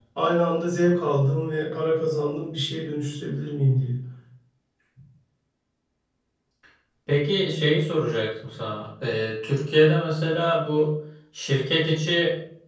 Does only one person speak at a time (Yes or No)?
Yes